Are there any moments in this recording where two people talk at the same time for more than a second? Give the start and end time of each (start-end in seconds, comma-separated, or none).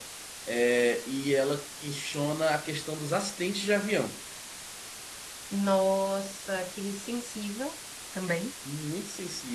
none